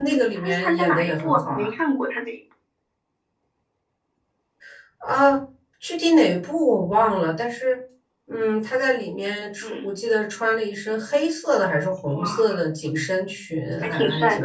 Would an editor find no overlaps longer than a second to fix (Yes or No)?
No